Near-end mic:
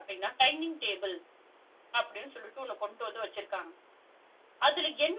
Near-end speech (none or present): none